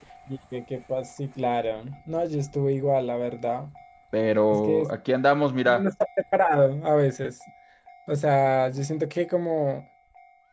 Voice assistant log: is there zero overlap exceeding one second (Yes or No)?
Yes